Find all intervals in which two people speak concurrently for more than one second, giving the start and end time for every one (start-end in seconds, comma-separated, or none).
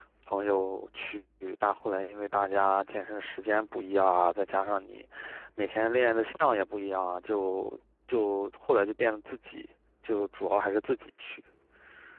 none